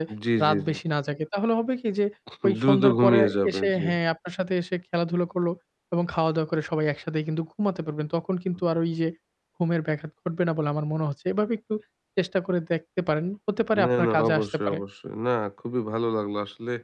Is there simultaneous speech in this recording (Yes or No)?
Yes